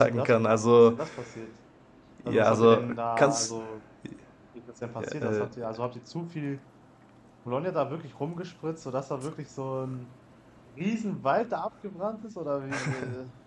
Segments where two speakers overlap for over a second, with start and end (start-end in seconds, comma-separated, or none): 2.2-3.5